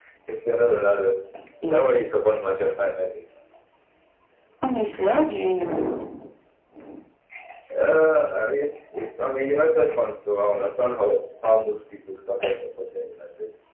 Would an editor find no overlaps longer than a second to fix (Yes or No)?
Yes